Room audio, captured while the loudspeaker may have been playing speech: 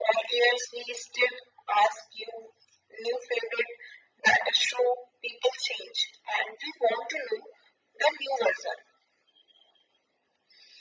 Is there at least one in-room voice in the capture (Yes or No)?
No